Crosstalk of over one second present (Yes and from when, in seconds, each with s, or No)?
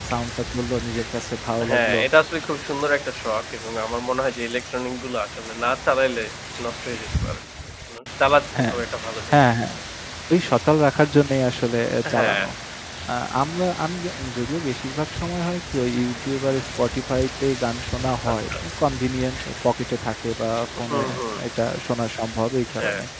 No